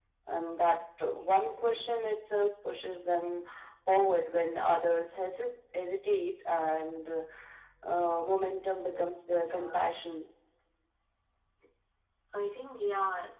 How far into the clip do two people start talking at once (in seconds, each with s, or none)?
8.6 s